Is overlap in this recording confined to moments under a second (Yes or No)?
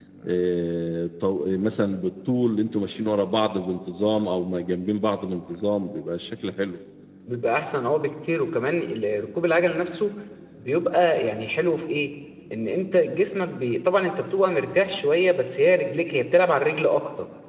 Yes